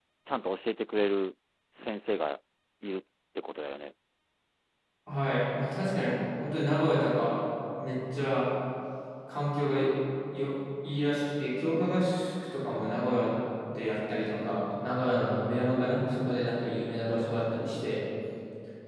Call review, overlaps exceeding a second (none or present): none